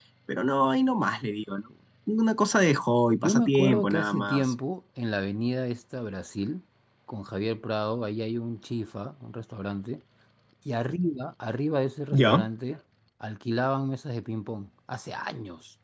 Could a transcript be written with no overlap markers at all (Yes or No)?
No